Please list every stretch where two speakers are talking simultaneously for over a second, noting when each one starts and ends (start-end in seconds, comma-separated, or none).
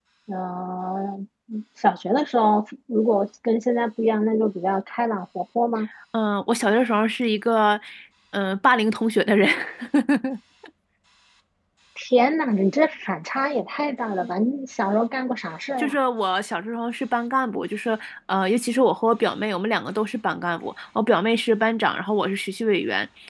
none